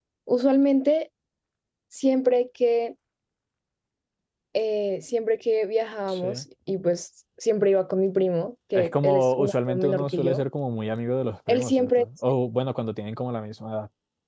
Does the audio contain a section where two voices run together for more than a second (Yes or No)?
Yes